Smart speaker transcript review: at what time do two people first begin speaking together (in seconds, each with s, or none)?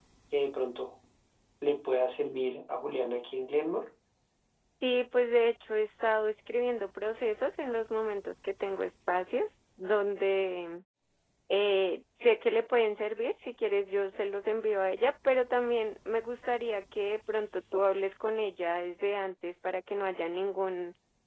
none